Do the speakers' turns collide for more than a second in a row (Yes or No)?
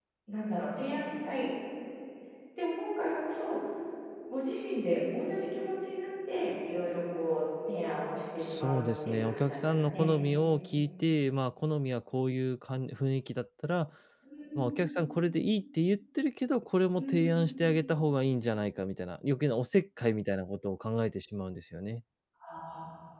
Yes